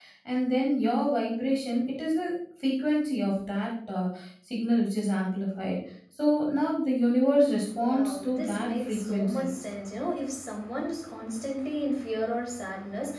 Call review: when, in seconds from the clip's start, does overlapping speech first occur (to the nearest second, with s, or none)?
8 s